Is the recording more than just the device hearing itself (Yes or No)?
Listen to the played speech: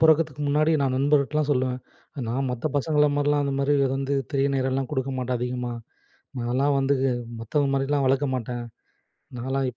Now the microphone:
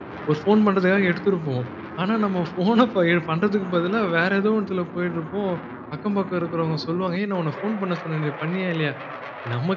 Yes